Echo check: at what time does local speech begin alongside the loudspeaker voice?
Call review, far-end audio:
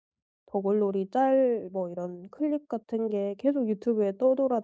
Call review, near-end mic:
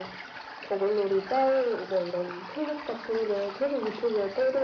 none

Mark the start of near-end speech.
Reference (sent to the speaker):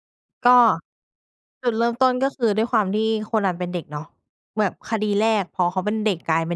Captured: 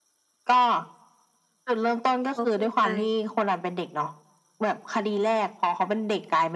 2.4 s

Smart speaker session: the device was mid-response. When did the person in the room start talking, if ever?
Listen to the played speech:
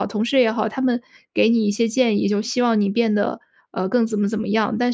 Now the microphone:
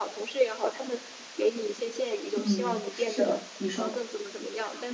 2.4 s

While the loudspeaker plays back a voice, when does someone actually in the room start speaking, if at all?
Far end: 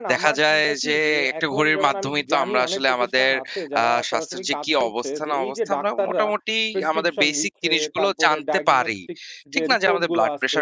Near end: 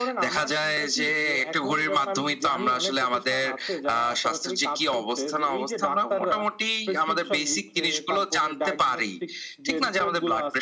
none

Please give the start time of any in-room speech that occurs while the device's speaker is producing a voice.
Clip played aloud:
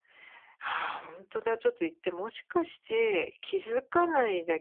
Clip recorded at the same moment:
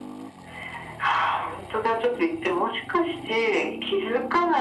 none

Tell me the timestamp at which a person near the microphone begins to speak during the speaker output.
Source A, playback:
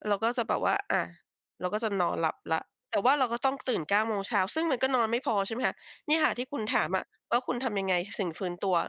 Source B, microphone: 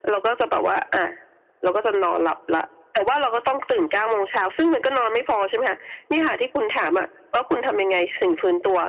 none

